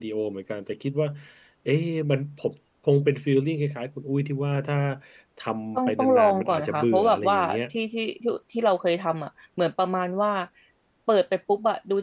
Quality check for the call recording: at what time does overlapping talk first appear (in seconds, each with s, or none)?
5.8 s